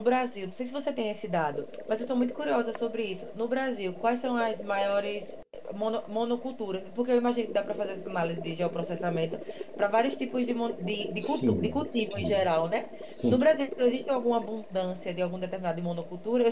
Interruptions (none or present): present